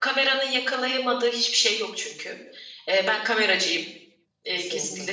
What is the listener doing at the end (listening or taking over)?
taking over